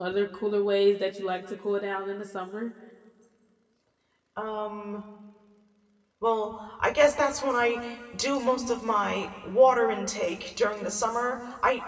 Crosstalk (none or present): none